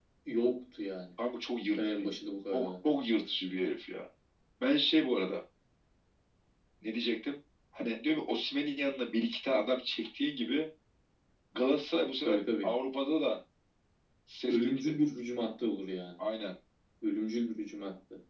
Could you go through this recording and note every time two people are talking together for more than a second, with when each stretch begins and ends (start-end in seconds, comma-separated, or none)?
none